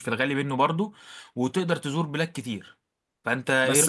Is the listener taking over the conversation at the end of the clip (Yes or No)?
Yes